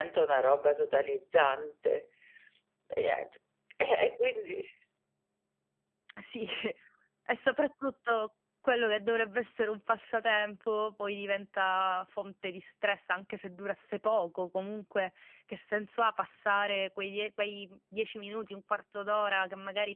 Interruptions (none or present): none